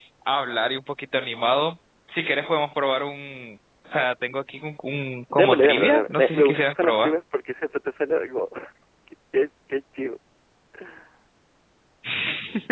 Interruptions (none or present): present